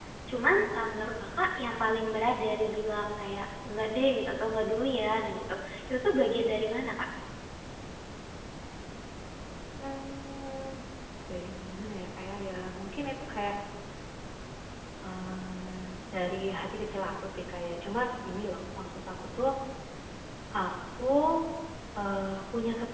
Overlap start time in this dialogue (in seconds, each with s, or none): none